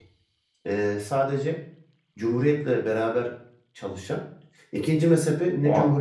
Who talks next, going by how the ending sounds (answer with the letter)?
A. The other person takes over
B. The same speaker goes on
B